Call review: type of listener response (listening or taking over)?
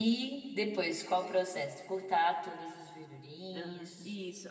taking over